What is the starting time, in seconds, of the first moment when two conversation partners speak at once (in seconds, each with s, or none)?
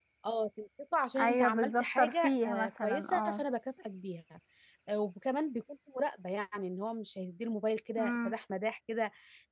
1.2 s